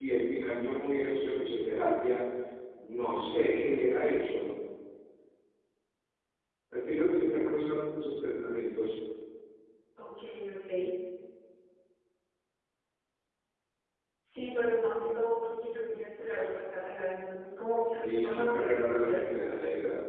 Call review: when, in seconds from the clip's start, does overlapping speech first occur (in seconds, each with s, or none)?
18.0 s